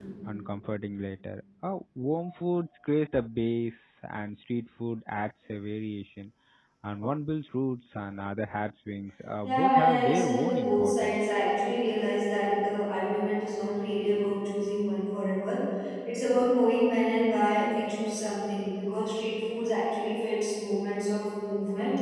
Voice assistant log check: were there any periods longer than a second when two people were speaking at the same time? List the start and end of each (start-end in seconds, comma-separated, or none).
9.4-11.2